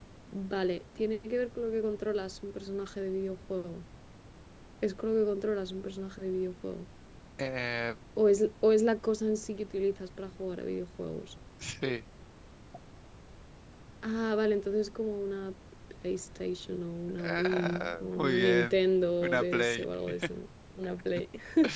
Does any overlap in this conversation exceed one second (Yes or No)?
Yes